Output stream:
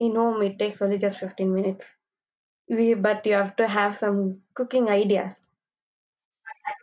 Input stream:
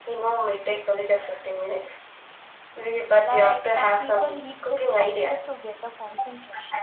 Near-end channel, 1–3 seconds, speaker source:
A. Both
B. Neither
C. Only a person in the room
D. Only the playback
D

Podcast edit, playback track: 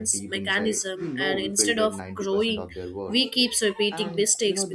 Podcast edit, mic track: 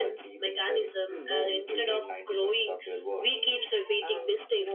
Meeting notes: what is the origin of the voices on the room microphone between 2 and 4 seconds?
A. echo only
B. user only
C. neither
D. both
A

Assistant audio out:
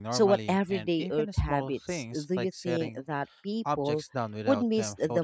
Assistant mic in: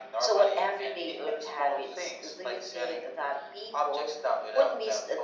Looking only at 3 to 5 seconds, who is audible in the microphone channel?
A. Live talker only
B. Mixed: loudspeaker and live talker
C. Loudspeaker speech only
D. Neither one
C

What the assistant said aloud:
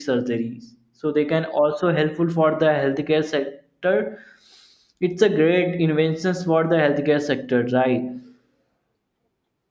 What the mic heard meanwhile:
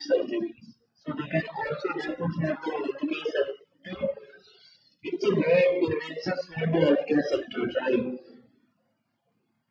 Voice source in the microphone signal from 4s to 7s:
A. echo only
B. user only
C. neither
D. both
A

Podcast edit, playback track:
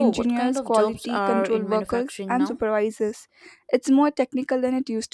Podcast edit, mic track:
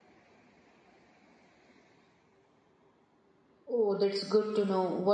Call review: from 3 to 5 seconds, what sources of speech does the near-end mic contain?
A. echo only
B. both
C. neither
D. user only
D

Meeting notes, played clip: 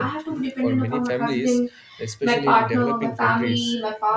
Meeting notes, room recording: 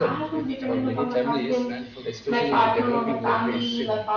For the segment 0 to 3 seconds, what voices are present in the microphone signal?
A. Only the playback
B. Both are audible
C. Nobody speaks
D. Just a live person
B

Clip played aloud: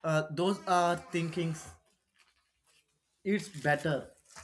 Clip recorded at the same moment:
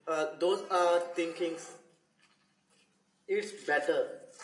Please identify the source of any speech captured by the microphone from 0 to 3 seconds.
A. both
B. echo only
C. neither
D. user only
B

